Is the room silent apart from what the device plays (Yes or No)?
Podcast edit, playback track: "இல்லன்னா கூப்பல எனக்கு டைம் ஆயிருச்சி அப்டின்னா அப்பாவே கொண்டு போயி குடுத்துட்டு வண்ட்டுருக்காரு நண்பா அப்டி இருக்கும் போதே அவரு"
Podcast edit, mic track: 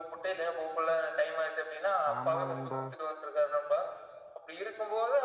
No